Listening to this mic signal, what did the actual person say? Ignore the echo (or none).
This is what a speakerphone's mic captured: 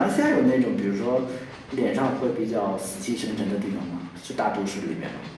none